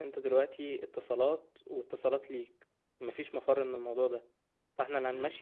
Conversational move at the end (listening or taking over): listening